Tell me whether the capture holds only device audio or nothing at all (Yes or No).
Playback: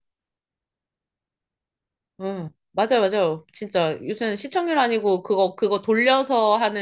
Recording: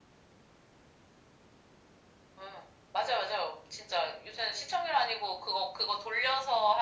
Yes